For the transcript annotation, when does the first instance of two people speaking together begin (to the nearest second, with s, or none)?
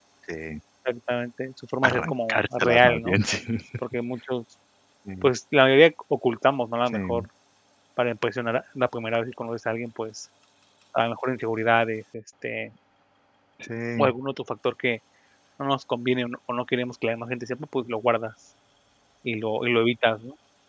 2 s